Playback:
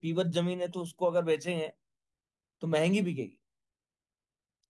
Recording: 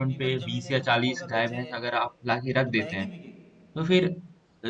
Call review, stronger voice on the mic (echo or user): user